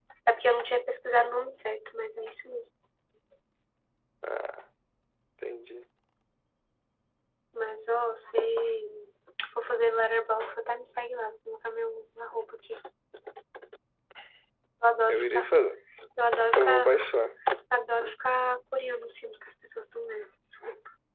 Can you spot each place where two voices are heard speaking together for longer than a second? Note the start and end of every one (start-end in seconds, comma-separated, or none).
none